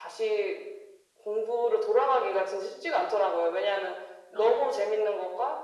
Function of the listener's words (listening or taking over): listening